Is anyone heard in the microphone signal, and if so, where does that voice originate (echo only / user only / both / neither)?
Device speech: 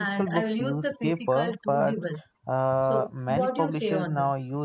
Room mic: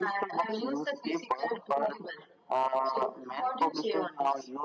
echo only